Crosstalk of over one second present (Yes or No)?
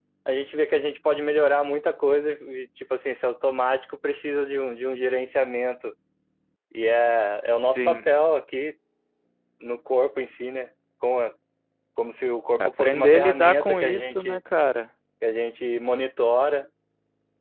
Yes